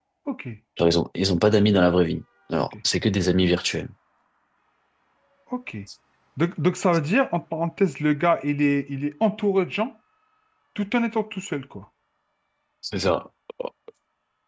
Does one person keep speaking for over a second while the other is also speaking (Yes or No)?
No